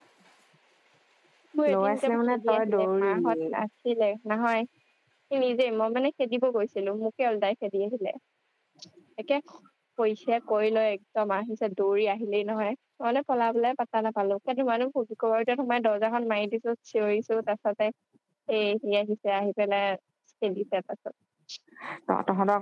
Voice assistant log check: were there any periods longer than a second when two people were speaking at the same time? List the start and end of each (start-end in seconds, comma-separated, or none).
1.7-3.3